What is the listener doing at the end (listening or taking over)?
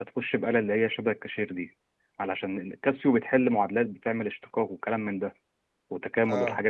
listening